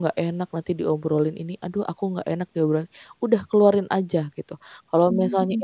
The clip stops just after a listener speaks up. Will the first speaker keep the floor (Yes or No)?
Yes